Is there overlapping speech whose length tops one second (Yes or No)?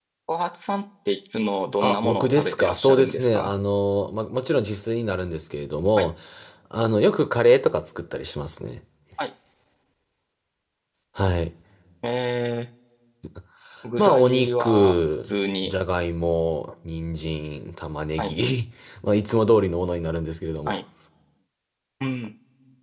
Yes